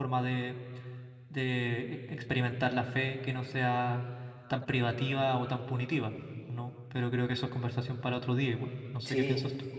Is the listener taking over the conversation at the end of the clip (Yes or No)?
Yes